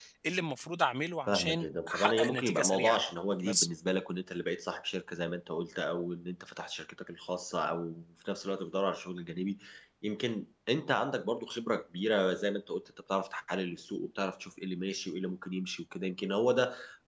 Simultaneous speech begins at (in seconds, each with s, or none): 1.3 s